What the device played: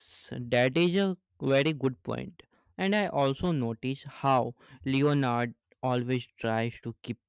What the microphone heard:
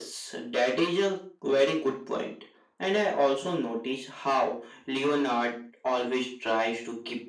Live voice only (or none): none